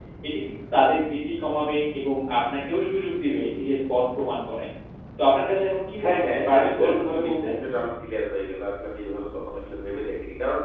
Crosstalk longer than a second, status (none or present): present